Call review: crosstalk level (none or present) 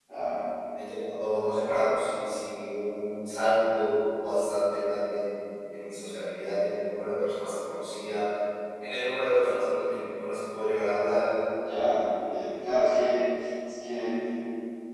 none